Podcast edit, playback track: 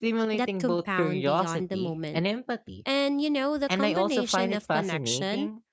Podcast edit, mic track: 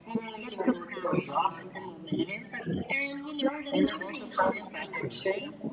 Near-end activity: none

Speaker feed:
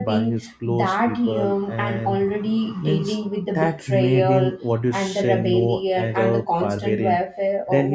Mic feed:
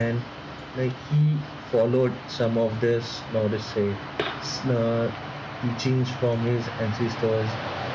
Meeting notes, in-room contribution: present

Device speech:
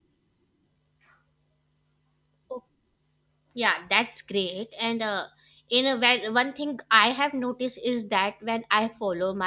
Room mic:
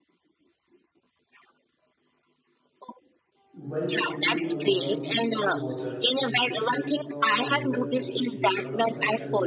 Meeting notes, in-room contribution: present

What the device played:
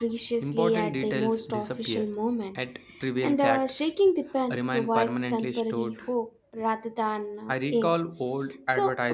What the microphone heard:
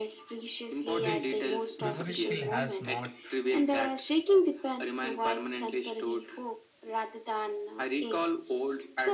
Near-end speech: present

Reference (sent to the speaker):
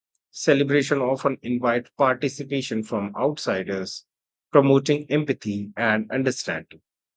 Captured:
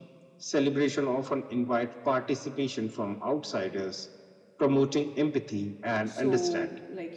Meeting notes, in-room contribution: present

